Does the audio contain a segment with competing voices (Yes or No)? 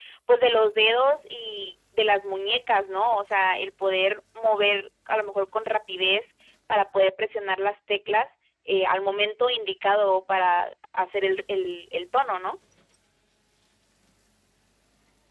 No